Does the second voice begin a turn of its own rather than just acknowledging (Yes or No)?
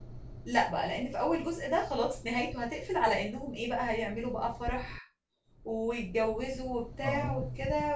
No